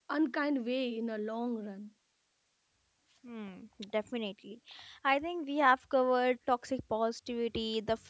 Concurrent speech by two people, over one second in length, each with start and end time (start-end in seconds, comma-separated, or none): none